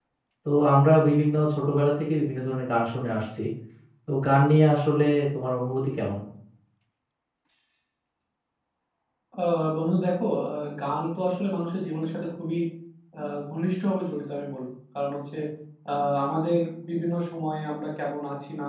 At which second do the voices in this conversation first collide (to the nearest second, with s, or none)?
none